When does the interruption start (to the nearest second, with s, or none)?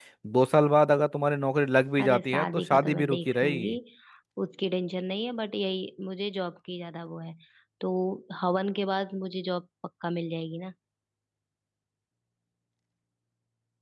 2 s